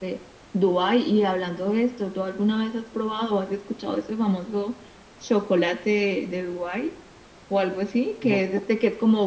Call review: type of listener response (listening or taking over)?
listening